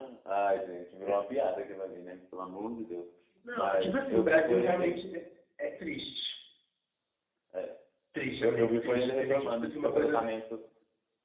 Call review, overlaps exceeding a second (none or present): present